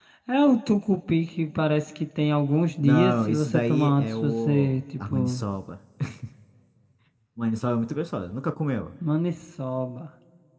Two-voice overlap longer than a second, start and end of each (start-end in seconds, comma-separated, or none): 2.8-5.4